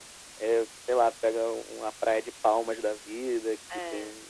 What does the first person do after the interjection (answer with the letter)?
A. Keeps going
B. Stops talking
A